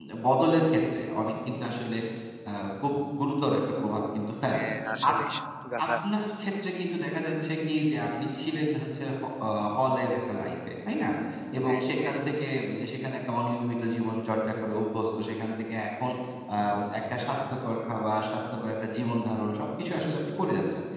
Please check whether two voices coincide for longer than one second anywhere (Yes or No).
No